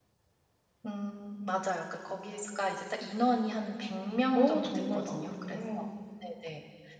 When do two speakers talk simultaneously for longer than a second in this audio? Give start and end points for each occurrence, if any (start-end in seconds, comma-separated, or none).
4.4-5.6